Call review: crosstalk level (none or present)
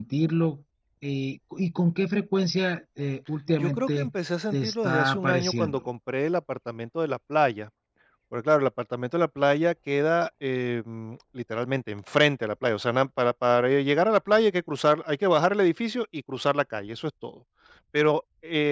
present